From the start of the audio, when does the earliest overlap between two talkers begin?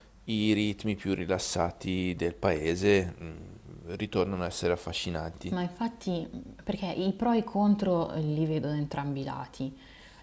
none

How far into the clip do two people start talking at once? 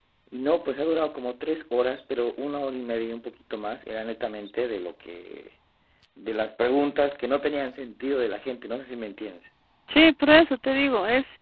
none

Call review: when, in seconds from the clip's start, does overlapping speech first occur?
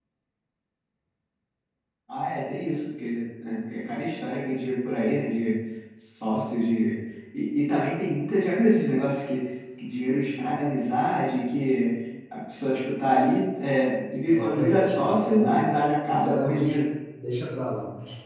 14.3 s

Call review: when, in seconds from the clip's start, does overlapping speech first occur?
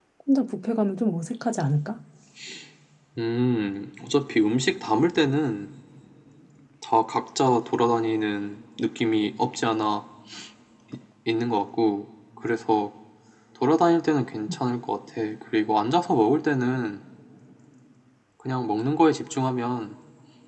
none

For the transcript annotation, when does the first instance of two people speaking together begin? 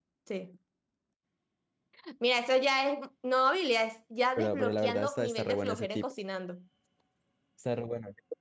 4.4 s

